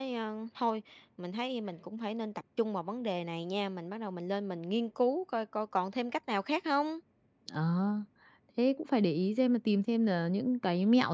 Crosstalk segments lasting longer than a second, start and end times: none

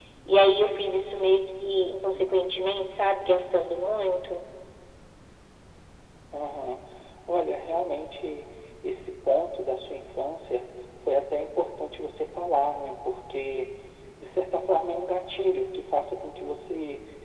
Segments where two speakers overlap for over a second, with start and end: none

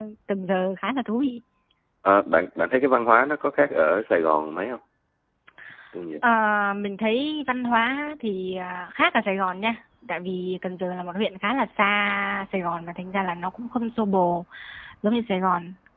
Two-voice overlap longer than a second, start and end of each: none

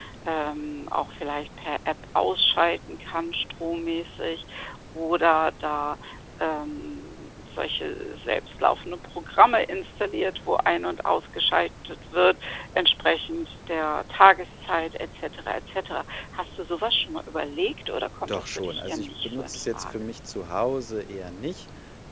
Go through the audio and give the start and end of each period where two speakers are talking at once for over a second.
18.3-20.1

